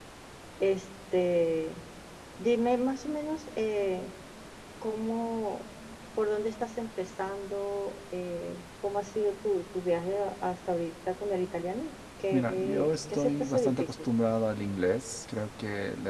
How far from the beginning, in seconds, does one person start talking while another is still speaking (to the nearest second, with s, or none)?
12 s